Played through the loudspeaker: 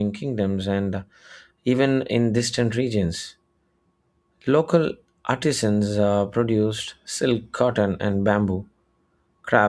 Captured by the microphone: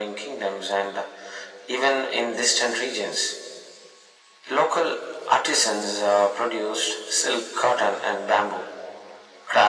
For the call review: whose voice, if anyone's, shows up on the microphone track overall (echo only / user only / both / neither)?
echo only